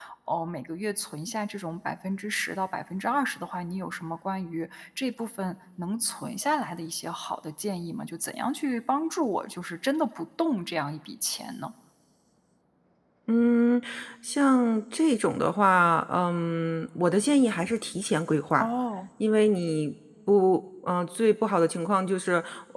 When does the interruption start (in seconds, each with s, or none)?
none